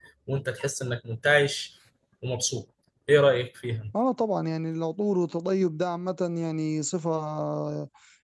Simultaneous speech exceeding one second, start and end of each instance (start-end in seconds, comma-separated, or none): none